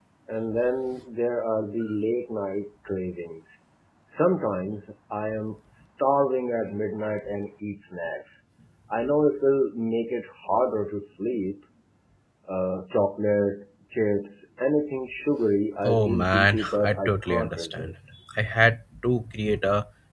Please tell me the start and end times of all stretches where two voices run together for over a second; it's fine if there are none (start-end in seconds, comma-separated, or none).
15.8-17.9